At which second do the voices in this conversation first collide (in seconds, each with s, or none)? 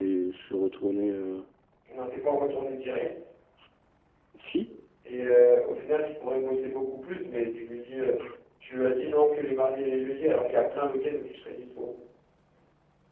none